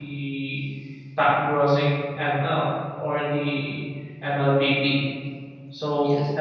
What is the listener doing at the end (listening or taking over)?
listening